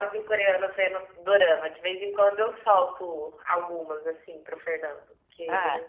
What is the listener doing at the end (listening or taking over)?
taking over